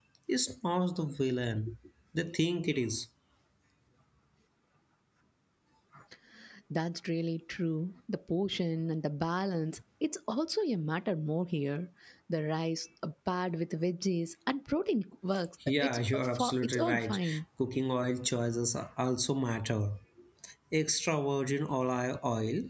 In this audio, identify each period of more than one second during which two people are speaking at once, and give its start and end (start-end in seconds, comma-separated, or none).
15.8-17.2